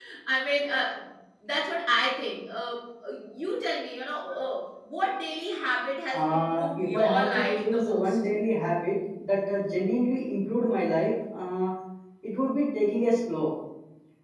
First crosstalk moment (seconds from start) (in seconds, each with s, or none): 6.1 s